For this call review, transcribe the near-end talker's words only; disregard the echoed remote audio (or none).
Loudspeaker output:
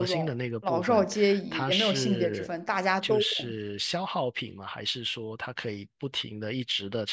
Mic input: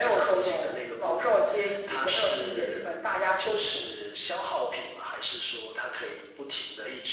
none